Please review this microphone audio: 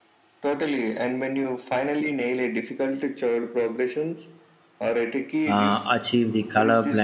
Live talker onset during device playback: 5 s

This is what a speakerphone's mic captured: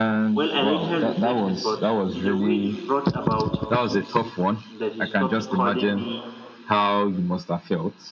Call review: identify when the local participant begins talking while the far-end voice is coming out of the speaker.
0 s

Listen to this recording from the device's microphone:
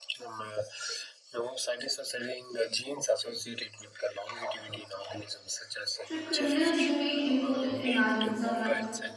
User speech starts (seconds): 6 s

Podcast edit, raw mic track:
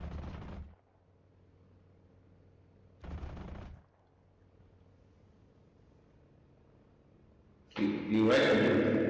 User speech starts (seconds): 8 s

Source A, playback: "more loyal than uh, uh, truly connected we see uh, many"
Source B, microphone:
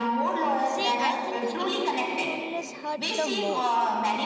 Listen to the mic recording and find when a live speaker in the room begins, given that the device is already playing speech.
1 s

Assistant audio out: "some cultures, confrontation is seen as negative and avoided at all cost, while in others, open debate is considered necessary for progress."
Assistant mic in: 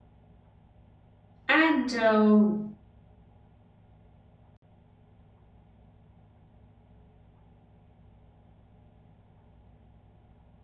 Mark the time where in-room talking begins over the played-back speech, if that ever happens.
1 s

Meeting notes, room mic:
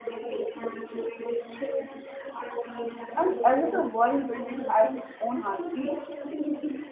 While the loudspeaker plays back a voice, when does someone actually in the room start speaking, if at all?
3 s

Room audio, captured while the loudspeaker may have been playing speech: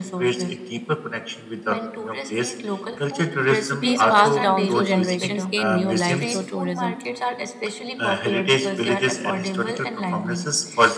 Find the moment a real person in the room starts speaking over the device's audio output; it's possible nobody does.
4 s

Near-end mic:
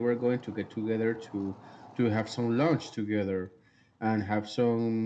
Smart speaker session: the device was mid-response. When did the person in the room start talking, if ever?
none

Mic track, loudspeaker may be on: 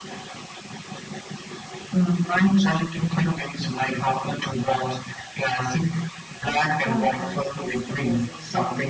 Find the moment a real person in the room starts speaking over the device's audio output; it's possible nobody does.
6 s

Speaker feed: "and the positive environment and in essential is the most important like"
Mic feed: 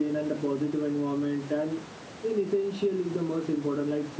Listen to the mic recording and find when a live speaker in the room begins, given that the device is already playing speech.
none

